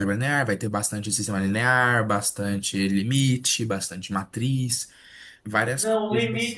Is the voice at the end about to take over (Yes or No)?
Yes